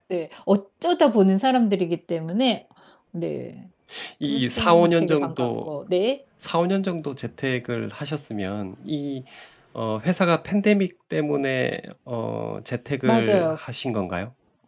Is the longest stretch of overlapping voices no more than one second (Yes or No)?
No